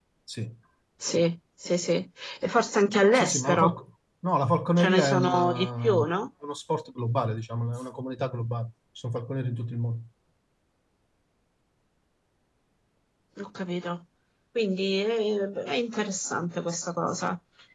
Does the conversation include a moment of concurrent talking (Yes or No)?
Yes